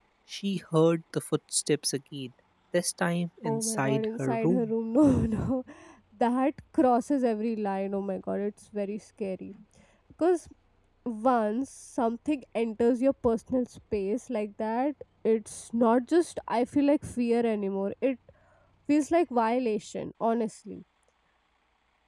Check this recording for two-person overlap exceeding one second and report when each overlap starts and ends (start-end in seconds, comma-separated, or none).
3.5-4.7